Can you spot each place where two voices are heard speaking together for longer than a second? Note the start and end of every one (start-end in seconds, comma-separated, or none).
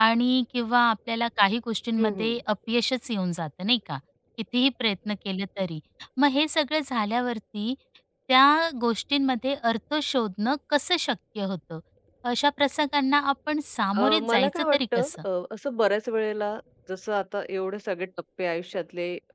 14.0-15.2